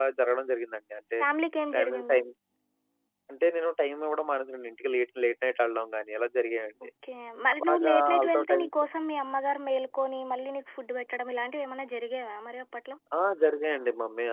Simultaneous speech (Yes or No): Yes